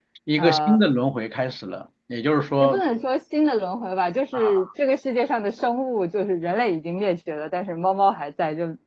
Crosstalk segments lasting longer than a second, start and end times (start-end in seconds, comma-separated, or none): none